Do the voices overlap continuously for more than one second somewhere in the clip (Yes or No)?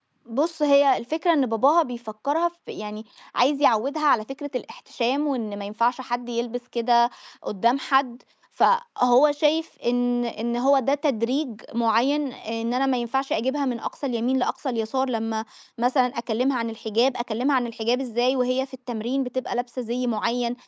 No